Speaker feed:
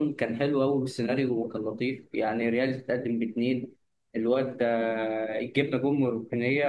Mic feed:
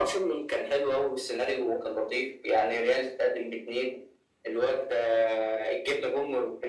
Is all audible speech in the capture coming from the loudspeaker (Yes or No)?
Yes